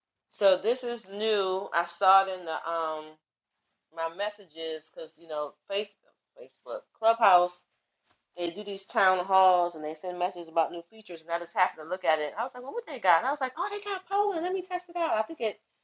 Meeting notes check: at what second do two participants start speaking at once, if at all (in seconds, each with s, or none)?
none